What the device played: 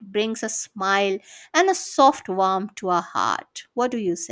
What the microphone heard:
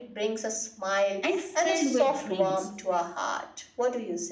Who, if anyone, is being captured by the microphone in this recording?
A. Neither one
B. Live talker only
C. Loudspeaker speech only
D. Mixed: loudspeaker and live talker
D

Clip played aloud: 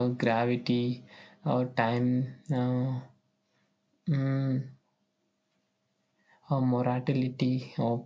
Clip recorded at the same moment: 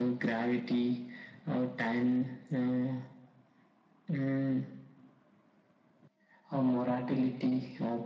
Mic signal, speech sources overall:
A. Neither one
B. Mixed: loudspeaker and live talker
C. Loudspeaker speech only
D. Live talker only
C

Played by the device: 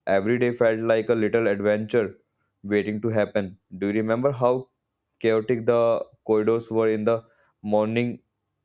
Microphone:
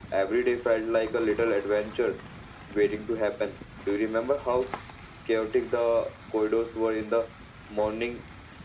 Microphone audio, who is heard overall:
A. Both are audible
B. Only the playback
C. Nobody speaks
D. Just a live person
B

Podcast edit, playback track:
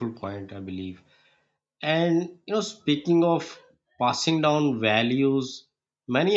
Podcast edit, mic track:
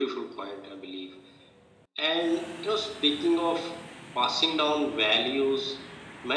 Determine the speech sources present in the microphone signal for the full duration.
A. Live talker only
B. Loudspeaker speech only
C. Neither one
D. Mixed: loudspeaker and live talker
B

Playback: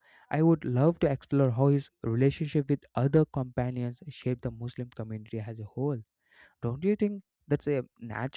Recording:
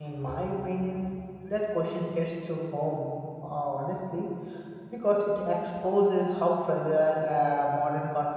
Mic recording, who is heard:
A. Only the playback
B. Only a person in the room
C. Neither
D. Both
B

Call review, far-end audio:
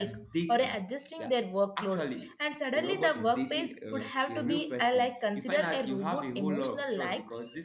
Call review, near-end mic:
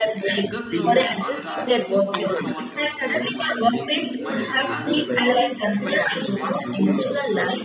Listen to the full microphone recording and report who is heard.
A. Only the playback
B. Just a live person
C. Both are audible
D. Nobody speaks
C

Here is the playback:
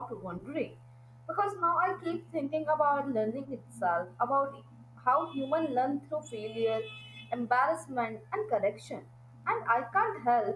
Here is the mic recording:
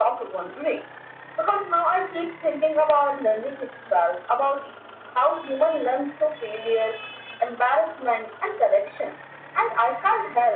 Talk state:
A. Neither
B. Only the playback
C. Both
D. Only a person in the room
B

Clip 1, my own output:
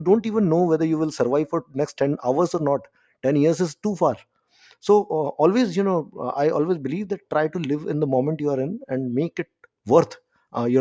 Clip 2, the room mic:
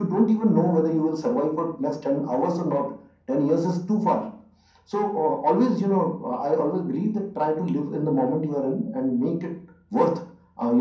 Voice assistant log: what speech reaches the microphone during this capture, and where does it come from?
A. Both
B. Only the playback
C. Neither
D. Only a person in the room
B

